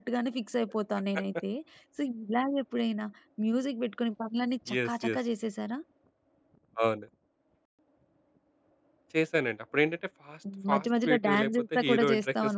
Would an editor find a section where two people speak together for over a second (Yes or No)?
Yes